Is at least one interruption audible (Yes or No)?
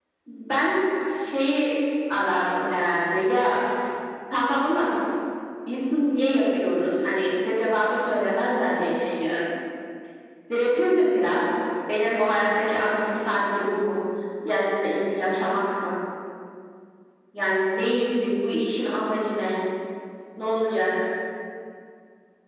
No